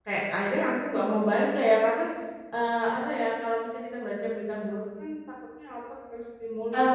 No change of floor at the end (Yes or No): No